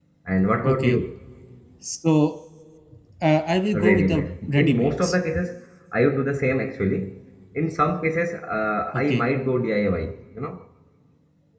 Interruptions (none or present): present